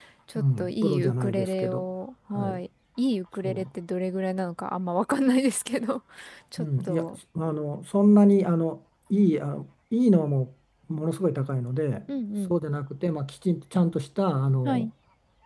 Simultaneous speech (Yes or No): Yes